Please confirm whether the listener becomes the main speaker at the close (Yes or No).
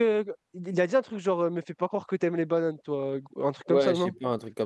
Yes